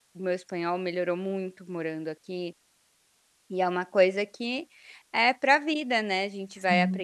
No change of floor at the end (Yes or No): Yes